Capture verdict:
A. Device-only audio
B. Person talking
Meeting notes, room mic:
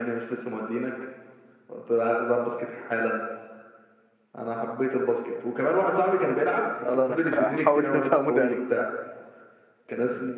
B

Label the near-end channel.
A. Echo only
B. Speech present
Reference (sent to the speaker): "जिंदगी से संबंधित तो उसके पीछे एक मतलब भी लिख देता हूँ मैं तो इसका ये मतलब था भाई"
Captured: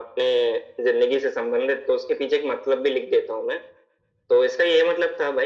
A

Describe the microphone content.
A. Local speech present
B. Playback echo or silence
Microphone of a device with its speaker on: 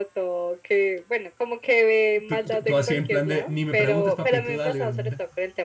A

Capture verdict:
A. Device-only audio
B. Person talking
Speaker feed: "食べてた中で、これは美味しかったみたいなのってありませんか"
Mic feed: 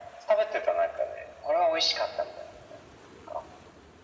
A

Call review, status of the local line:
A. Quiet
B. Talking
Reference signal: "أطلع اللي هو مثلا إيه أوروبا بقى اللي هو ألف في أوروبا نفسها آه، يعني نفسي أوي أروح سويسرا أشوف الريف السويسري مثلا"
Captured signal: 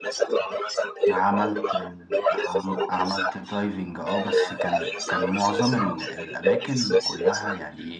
B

